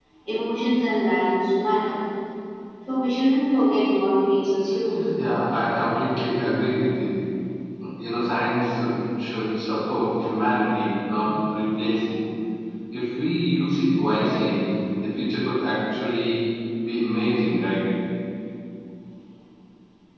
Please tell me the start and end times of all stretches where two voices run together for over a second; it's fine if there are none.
none

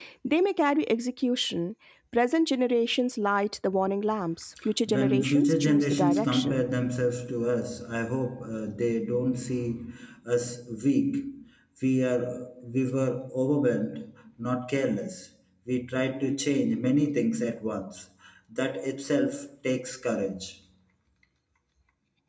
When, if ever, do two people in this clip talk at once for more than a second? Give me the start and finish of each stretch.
4.9-6.6

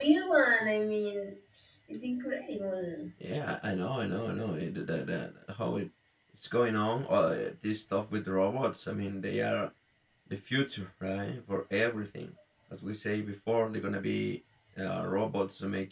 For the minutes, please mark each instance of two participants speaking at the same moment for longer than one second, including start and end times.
none

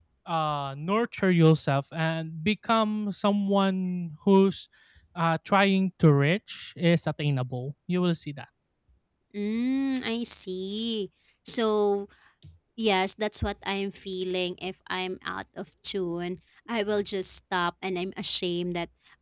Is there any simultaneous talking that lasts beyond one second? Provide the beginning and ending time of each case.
none

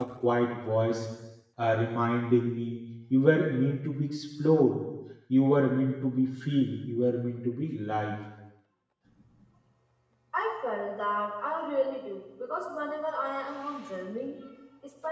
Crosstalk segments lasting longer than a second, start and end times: none

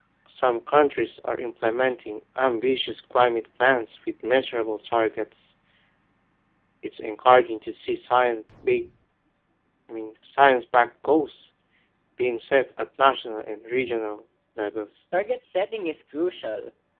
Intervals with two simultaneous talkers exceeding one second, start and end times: none

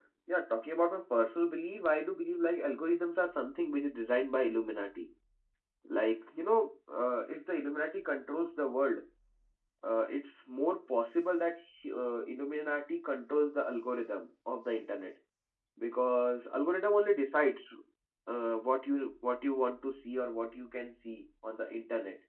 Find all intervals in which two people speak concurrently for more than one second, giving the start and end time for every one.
none

